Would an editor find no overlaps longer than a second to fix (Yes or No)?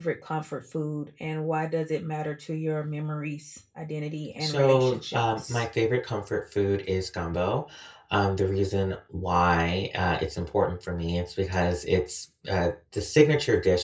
No